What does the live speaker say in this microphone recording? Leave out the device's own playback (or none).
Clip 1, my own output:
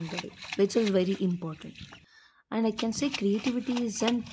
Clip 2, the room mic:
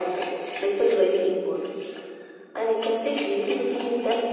none